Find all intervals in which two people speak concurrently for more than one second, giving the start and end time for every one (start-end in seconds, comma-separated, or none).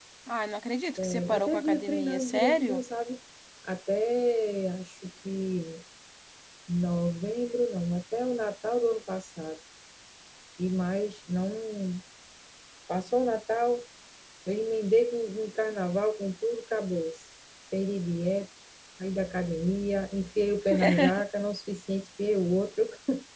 1.0-2.8